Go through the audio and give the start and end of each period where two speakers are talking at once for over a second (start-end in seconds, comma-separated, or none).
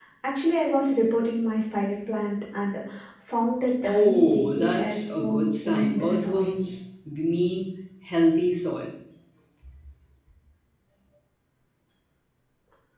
3.8-6.6